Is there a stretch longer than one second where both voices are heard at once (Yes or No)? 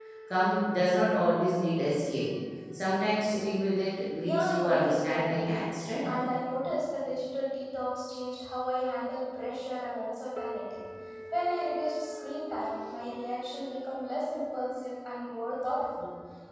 Yes